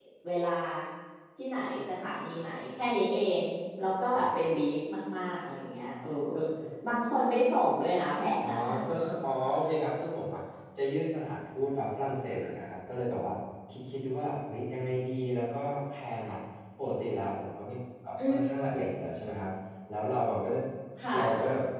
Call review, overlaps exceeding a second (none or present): none